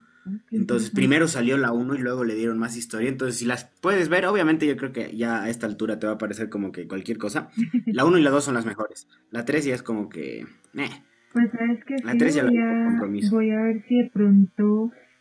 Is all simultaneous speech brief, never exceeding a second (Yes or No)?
No